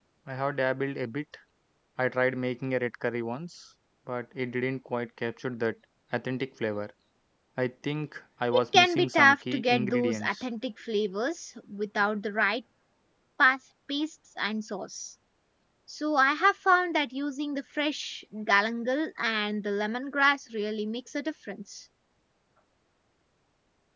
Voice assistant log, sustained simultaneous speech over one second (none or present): present